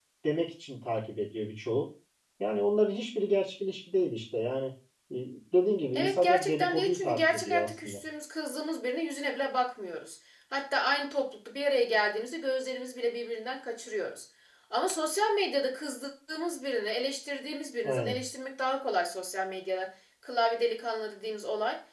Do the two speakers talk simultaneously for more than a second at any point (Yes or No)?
Yes